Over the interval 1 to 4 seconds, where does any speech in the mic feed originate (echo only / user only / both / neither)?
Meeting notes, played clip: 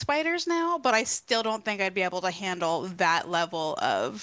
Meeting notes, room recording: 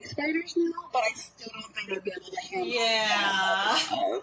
both